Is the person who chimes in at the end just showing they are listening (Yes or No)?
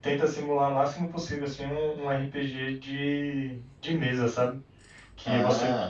Yes